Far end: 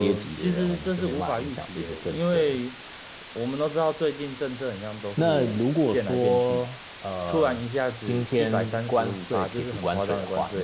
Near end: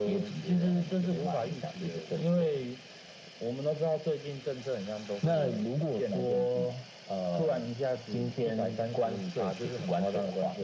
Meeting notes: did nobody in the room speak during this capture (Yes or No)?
Yes